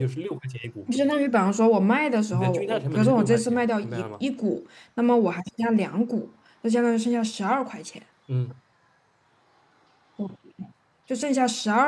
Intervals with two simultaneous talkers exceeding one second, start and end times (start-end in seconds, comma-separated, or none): 2.3-4.2